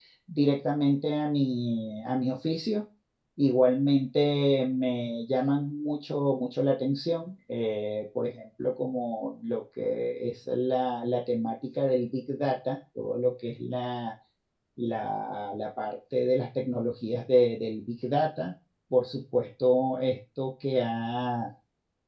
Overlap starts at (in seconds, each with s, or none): none